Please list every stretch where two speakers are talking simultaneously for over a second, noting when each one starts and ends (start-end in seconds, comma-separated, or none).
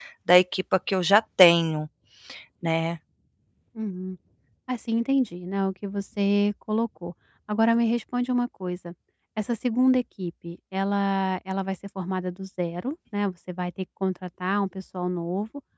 none